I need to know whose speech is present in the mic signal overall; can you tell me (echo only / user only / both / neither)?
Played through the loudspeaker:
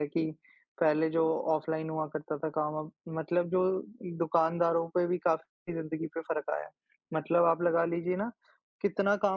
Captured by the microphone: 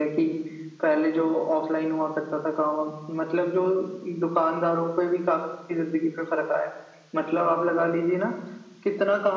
echo only